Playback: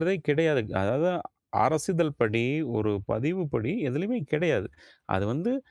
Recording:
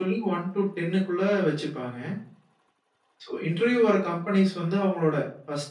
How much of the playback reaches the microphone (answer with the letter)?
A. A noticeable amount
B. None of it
B